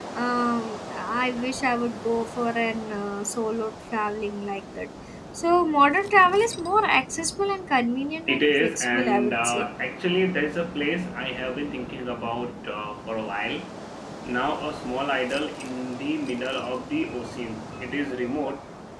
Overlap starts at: 8.3 s

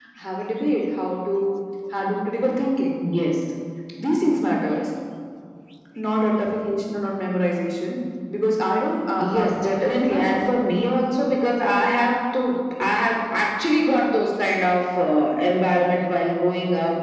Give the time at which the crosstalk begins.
9.2 s

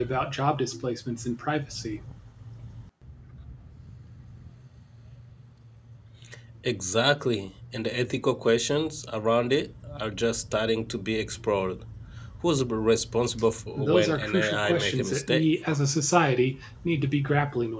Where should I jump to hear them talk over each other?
13.8 s

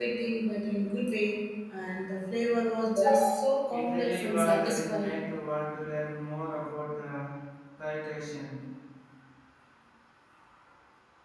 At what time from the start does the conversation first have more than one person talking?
3.7 s

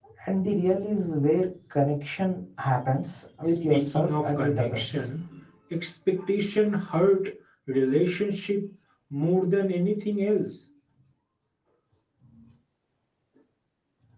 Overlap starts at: 3.5 s

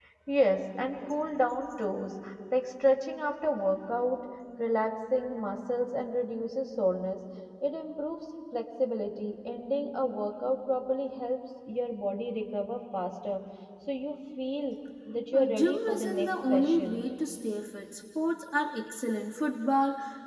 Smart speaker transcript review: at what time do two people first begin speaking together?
15.3 s

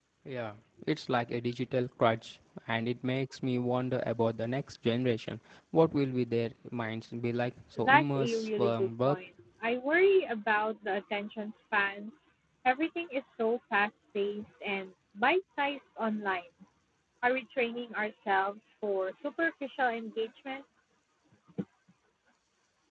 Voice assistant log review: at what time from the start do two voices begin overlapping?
7.8 s

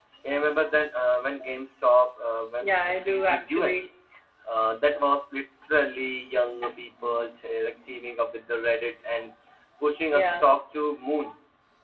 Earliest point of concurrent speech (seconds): 2.6 s

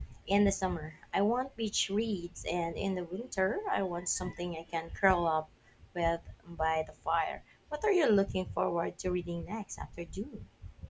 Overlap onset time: none

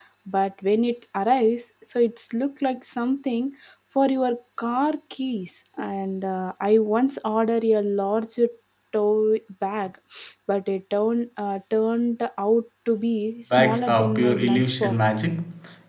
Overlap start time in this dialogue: 13.5 s

